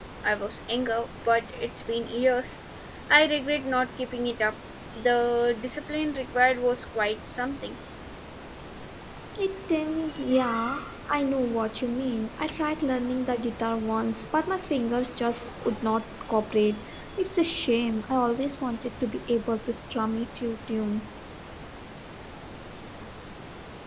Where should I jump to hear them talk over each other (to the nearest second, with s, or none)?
none